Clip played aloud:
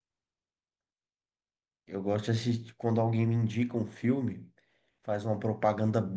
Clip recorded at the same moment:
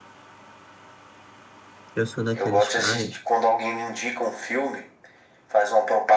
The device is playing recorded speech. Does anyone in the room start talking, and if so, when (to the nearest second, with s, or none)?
2 s